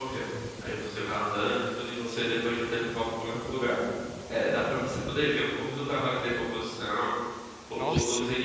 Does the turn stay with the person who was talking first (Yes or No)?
Yes